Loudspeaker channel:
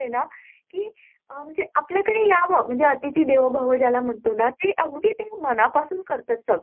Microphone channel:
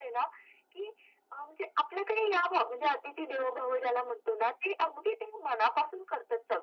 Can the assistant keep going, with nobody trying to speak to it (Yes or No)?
Yes